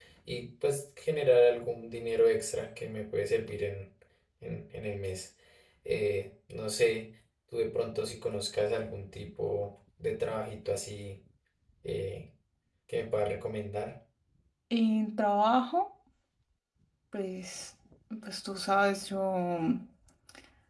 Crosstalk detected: No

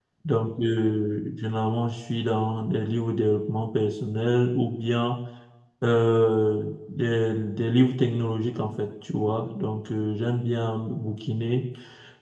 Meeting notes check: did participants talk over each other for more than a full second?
No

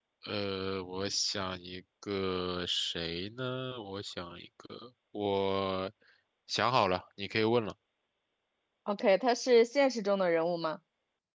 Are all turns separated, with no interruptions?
Yes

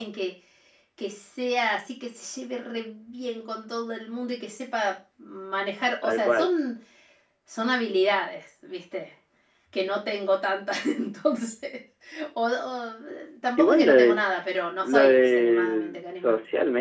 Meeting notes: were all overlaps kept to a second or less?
No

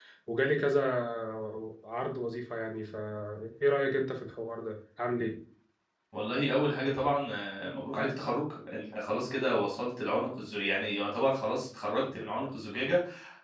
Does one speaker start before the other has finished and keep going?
No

